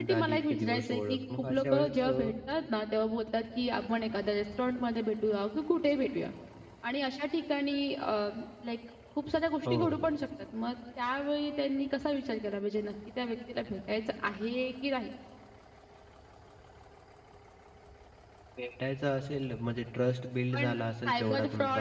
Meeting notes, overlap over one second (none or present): present